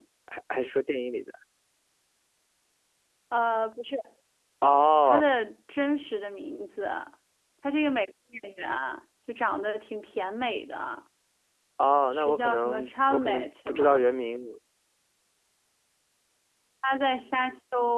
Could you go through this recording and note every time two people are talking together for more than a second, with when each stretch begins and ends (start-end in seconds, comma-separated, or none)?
12.1-14.1